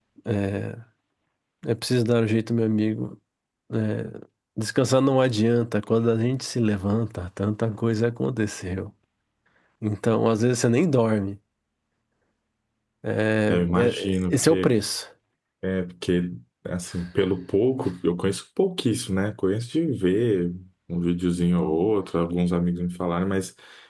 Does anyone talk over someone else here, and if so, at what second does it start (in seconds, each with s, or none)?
13.5 s